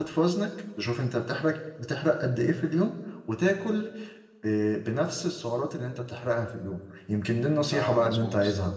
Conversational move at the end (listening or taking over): listening